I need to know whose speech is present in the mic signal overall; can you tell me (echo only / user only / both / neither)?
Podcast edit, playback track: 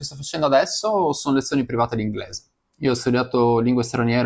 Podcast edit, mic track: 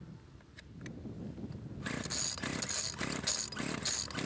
neither